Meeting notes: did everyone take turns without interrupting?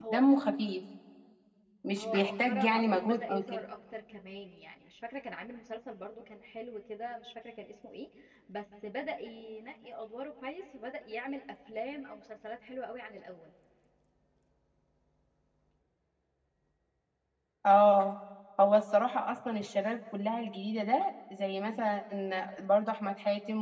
No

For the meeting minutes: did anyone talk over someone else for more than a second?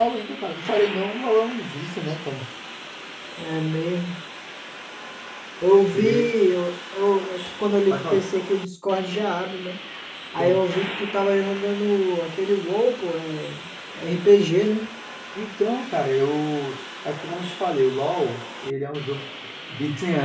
No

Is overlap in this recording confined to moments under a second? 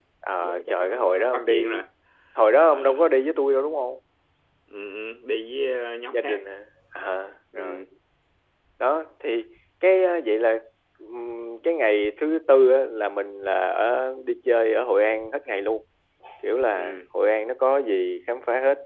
No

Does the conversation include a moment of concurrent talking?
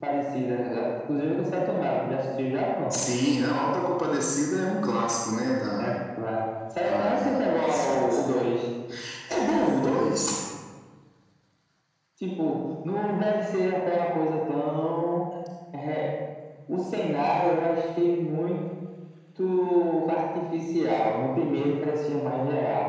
Yes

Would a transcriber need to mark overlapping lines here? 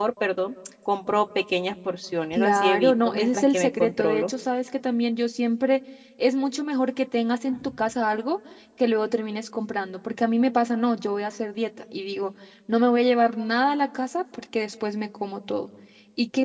Yes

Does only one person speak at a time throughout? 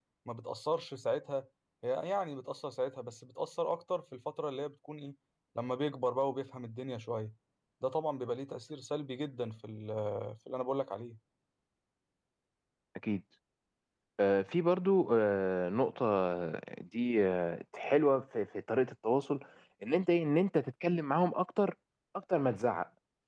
Yes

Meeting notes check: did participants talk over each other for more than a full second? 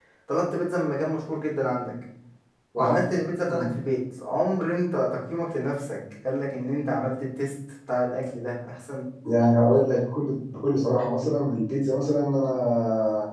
No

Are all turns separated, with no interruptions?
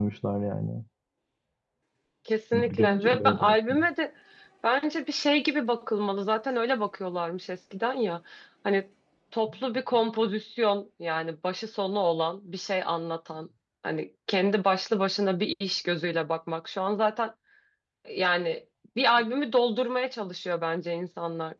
No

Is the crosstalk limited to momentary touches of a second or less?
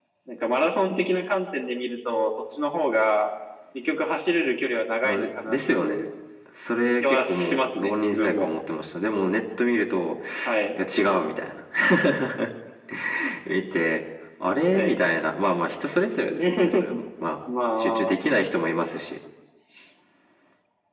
No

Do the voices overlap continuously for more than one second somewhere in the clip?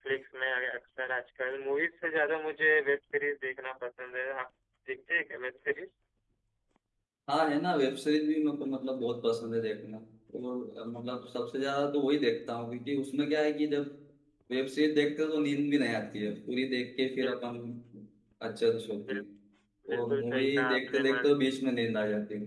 Yes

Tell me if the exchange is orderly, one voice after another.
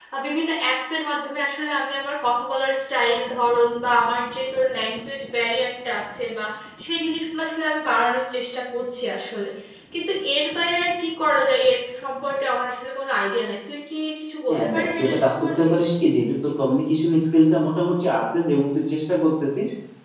No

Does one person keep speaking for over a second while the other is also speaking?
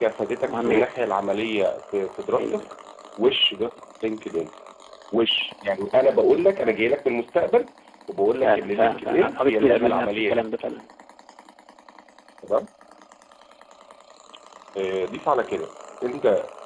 Yes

